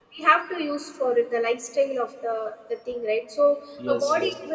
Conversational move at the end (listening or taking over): listening